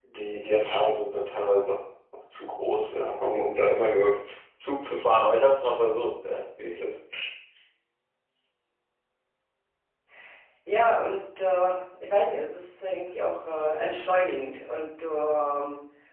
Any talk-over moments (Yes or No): No